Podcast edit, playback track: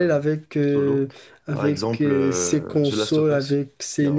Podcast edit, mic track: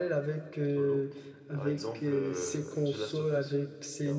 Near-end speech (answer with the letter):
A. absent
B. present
A